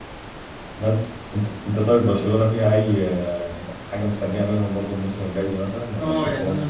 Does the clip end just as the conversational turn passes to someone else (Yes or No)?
Yes